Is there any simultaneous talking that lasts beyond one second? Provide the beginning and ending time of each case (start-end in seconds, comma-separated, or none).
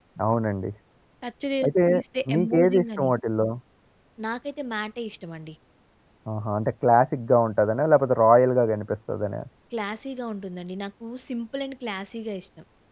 1.6-3.1